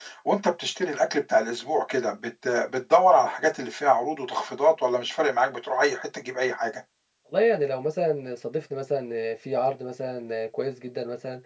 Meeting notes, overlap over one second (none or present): none